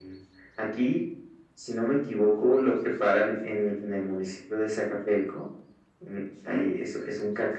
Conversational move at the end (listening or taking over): listening